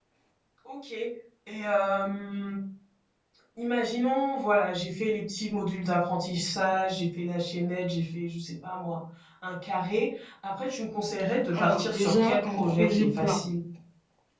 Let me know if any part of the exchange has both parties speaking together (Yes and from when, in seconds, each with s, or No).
Yes, from 11.5 s